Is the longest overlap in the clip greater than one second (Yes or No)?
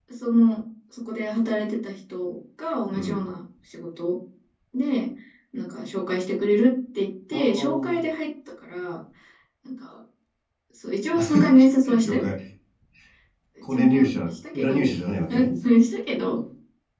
Yes